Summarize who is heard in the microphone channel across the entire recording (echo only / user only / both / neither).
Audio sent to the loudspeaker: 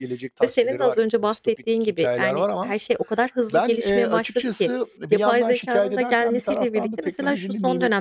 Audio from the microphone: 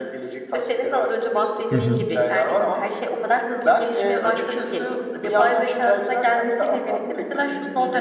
both